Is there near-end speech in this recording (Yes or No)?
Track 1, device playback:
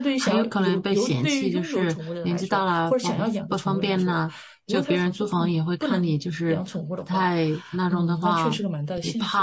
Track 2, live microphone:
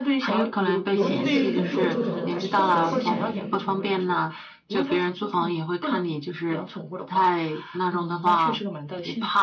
Yes